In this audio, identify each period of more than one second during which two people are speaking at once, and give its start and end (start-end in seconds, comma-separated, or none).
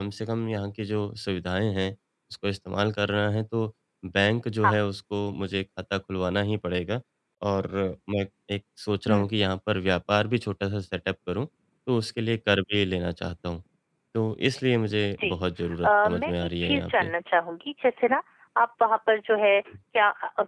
15.8-17.1